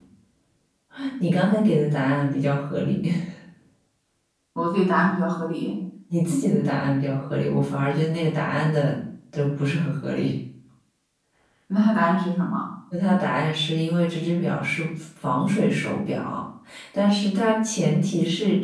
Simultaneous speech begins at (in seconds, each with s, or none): none